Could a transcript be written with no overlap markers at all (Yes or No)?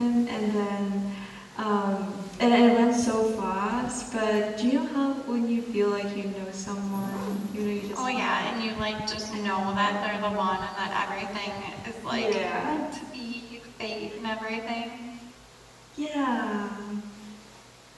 No